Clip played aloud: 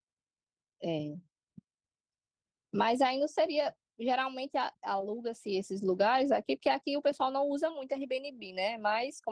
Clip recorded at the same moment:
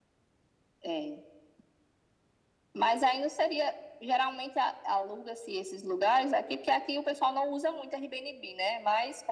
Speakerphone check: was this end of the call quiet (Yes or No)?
Yes